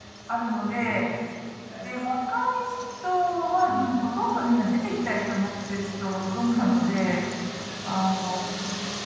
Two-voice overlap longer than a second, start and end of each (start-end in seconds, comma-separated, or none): none